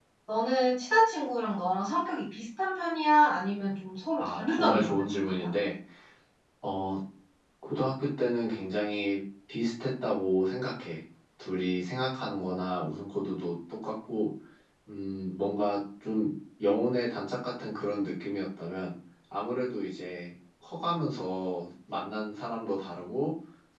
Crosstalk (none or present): present